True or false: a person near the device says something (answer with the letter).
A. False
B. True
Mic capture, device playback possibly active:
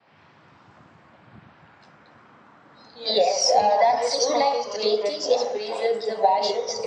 A